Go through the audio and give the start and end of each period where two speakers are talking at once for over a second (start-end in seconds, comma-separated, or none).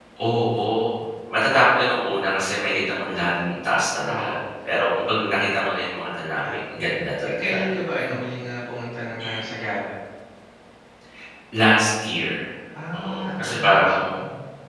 12.9-14.2